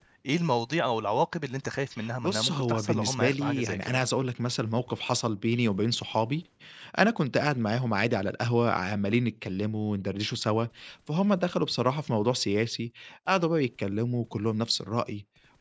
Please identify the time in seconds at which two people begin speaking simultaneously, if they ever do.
2 s

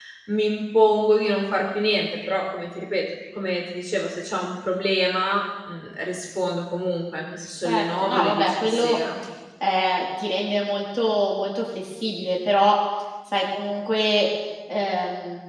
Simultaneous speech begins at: 8 s

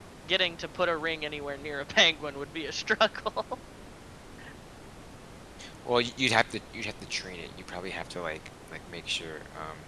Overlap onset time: none

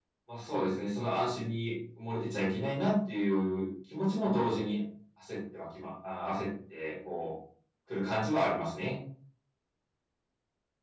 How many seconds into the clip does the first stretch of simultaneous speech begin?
none

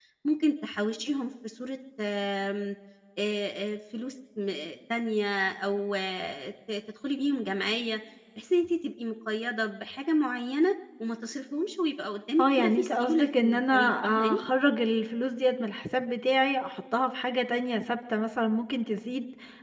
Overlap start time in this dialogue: 12 s

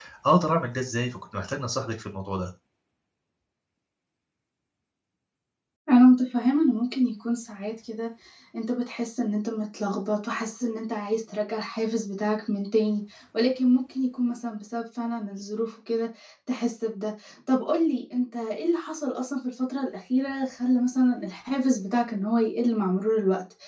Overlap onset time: none

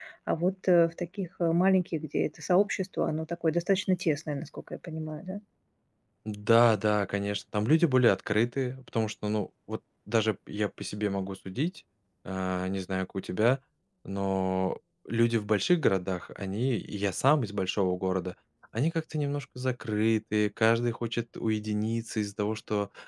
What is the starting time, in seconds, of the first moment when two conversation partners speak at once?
none

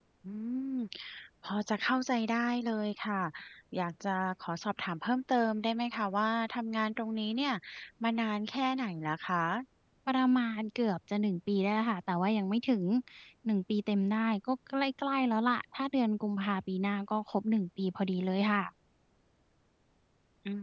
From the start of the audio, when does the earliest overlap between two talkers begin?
none

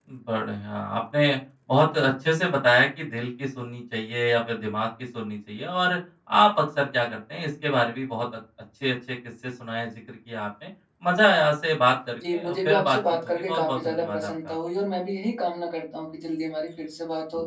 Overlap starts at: 12 s

